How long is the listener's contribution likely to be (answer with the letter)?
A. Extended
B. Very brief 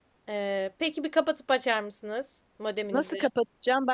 A